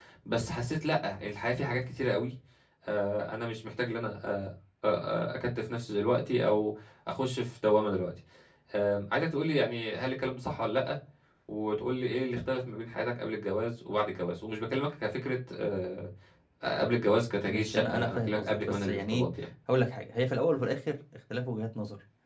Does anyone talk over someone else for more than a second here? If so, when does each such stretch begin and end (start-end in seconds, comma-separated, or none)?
17.5-19.3